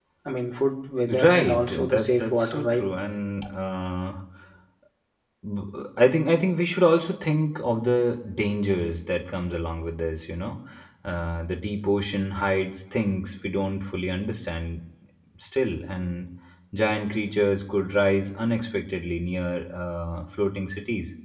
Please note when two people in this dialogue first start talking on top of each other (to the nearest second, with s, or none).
1 s